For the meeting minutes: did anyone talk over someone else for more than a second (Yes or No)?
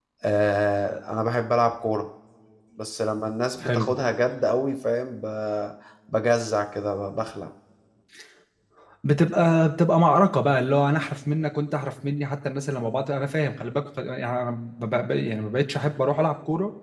No